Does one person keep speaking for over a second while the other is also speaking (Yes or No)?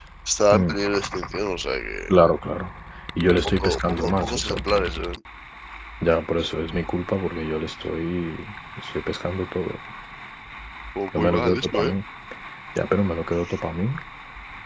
Yes